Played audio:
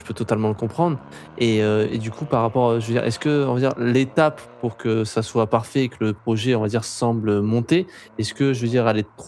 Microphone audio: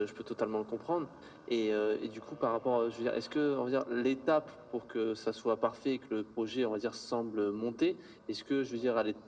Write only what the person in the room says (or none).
none